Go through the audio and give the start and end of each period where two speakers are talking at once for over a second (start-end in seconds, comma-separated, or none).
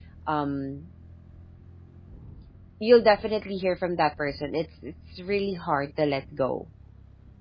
none